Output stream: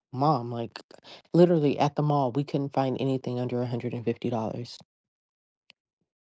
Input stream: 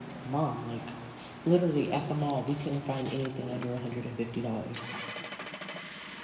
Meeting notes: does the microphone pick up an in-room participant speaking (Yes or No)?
No